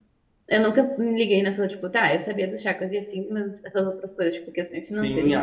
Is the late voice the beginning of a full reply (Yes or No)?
Yes